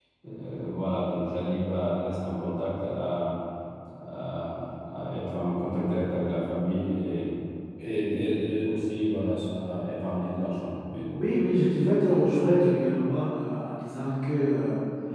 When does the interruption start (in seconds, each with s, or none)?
none